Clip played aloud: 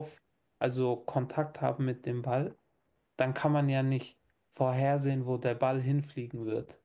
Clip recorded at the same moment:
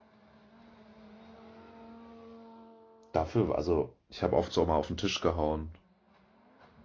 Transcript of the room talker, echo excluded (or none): Dafür, also, ich habe oft so mal auf den Tisch gehauen.